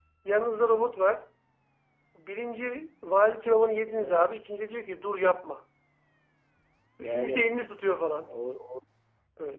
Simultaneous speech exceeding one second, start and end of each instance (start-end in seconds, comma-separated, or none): none